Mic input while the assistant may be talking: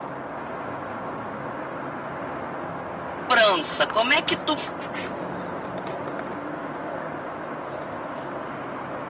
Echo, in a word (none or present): none